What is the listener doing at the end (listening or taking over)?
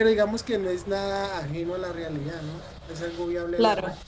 taking over